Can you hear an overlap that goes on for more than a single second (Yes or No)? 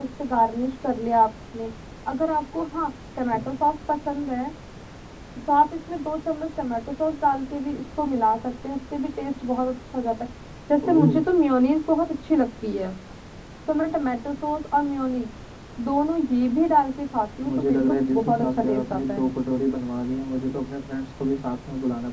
Yes